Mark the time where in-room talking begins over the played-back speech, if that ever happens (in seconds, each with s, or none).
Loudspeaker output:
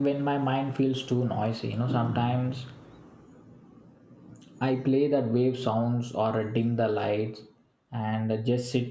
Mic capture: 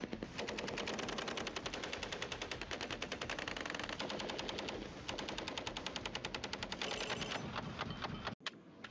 none